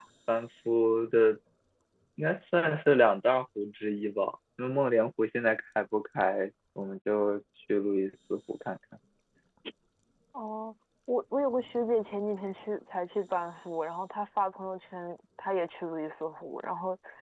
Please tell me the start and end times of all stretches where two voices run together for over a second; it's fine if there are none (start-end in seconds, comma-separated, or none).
none